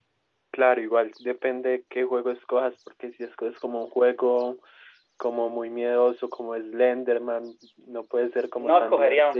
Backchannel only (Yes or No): No